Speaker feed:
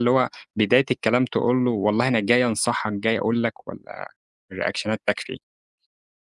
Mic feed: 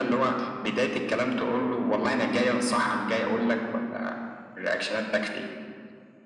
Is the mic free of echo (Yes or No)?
No